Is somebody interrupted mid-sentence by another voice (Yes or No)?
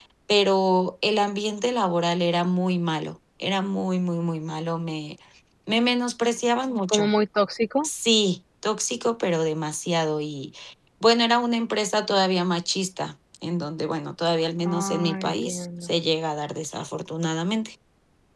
Yes